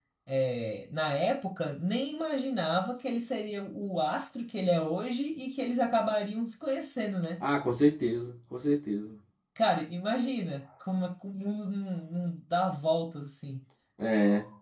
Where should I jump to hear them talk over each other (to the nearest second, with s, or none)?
none